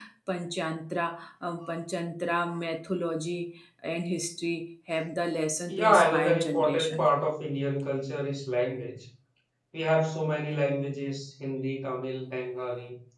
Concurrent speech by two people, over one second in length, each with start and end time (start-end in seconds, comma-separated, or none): 5.7-7.0